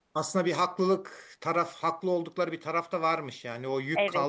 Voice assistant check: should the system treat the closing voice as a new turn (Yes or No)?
No